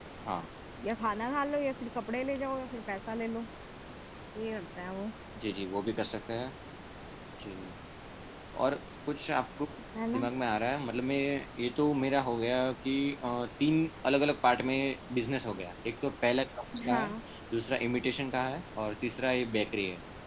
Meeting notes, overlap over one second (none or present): none